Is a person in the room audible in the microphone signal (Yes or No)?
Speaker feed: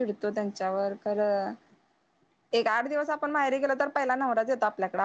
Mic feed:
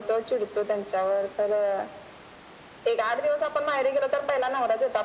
No